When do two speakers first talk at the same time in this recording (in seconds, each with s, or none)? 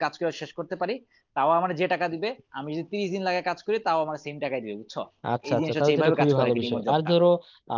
5.5 s